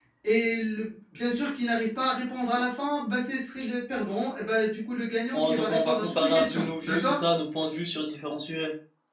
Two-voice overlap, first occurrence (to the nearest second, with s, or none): 5 s